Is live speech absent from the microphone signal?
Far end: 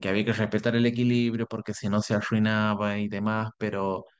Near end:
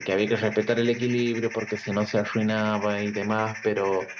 Yes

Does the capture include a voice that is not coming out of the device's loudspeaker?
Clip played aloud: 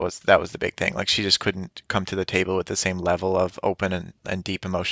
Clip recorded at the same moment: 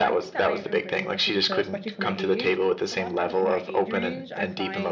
Yes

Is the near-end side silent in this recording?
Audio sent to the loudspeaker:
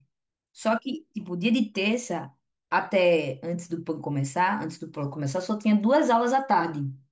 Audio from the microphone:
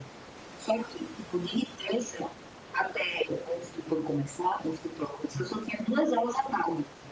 Yes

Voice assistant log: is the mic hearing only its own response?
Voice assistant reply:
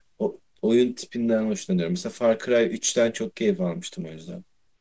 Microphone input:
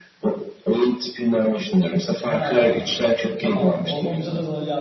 No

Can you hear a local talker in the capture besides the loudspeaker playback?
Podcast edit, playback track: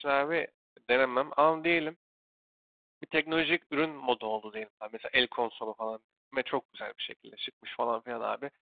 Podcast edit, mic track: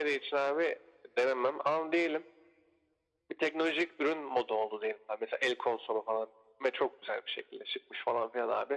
No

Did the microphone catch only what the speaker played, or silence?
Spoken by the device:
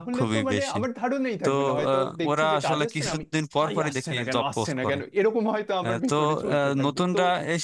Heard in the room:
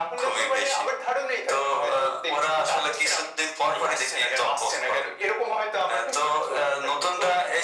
Yes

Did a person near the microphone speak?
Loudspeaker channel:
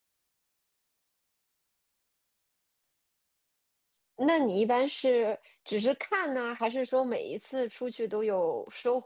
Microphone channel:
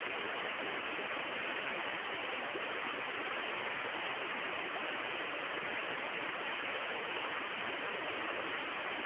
No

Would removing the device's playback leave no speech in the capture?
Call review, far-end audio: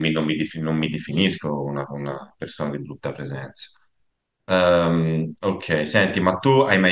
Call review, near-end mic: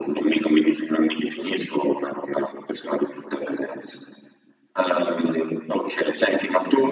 No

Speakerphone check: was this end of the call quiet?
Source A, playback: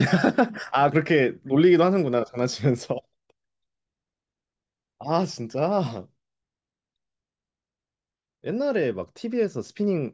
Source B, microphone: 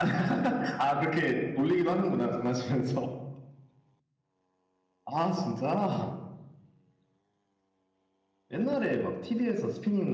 Yes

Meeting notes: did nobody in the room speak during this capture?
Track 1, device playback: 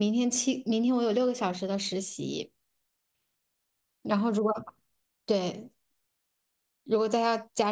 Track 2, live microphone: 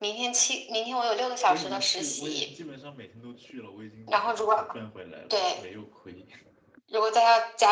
No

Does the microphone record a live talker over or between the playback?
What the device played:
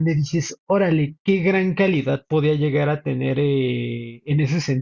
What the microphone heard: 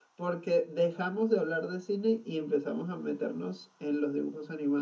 Yes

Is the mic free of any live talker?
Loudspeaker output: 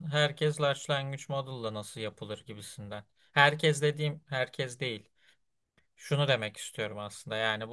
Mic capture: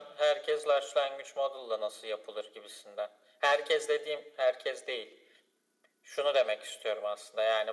Yes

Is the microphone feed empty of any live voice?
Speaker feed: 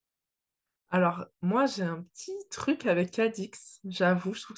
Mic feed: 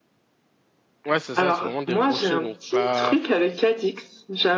No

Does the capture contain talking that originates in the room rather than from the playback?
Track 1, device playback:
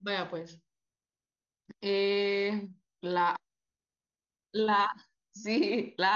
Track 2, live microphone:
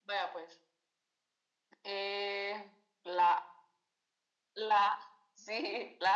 No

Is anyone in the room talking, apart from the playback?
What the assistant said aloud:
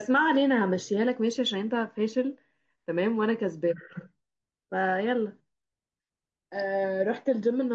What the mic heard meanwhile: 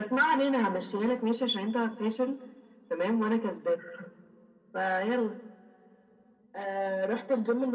No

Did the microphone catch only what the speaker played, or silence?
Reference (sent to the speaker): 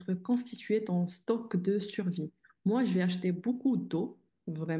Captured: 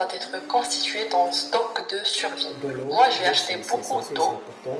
No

